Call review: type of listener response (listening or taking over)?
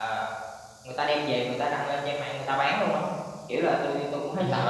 listening